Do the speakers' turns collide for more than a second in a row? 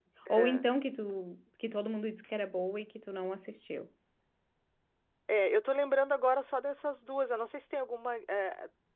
No

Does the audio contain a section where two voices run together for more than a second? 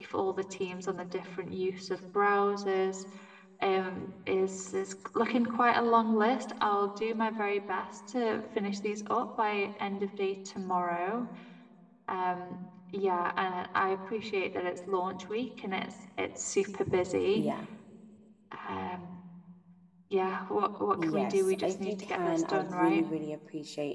Yes, from 21.0 s

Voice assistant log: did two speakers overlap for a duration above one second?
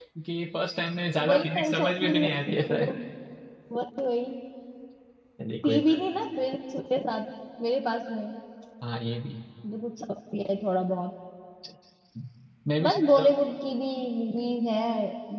Yes, from 1.2 s

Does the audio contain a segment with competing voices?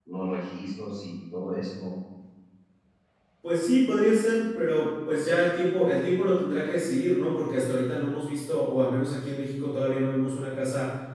No

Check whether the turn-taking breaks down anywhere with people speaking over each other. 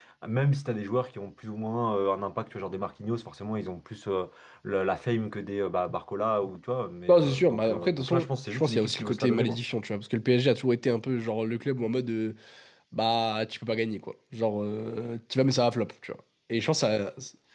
Yes, from 7.1 s

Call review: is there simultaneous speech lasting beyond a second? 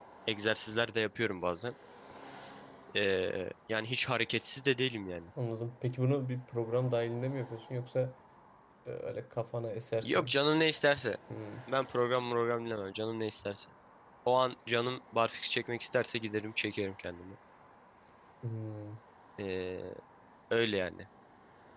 No

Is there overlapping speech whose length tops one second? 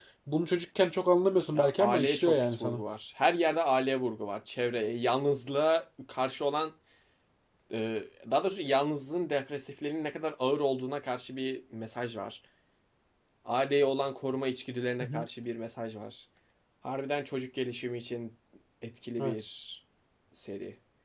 Yes, from 1.5 s

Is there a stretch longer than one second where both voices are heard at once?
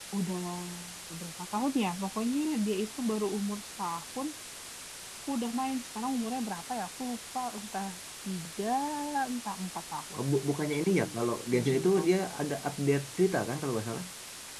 No

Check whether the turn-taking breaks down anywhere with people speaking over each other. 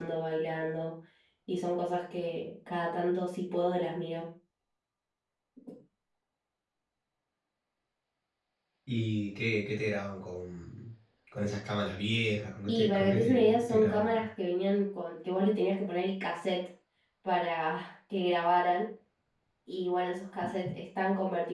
Yes, from 12.7 s

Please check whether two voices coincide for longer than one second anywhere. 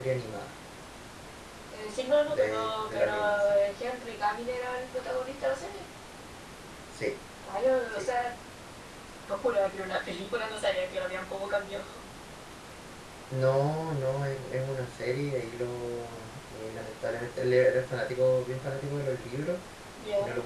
Yes, from 2.3 s

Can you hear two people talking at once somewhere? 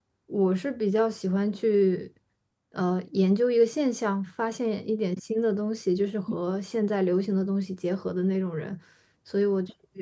No

